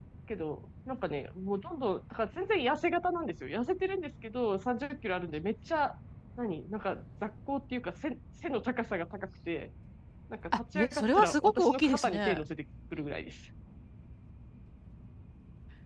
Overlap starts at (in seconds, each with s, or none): 10.7 s